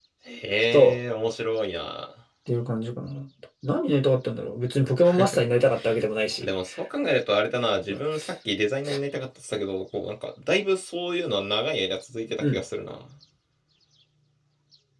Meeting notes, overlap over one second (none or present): none